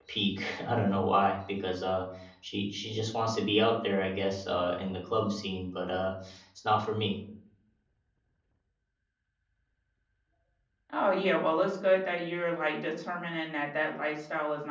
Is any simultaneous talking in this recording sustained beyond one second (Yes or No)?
No